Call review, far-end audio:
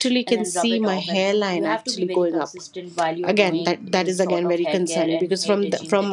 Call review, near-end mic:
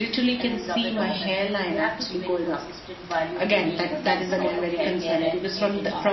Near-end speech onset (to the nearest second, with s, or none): 4 s